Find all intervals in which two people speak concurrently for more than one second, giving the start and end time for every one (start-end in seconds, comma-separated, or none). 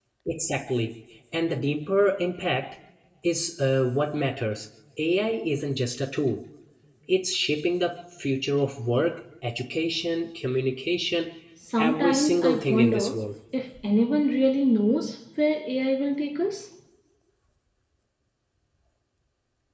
11.8-13.2